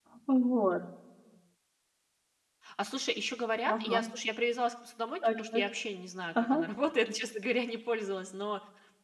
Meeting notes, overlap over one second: none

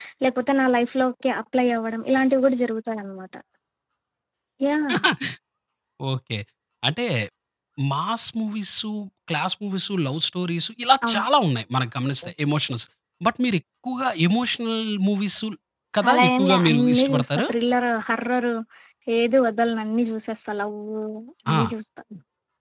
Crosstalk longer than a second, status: present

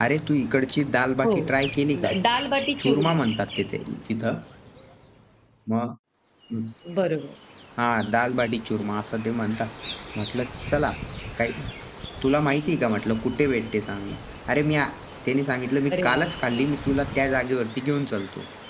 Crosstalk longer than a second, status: none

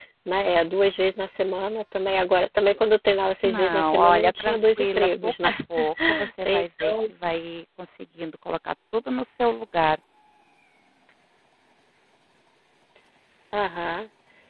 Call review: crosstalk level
present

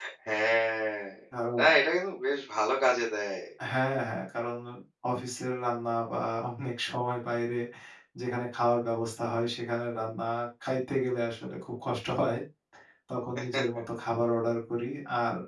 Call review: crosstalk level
none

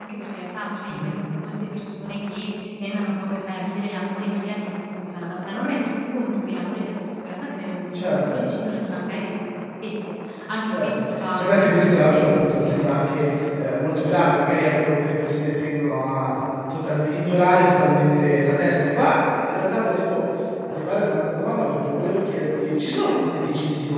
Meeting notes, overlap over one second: present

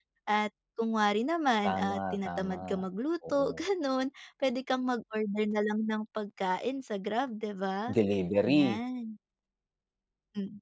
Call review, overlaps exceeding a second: present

